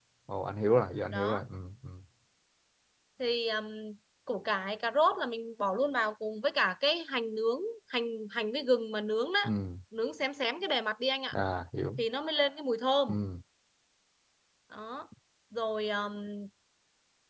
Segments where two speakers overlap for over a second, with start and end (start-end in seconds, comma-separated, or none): none